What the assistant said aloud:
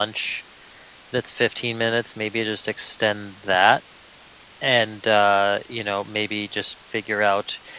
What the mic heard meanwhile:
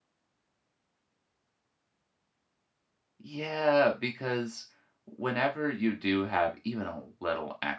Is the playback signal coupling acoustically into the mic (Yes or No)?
No